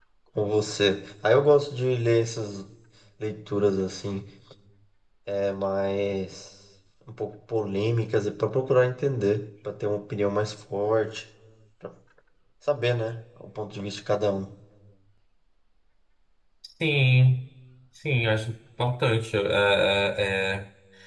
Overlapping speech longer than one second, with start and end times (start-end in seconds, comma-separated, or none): none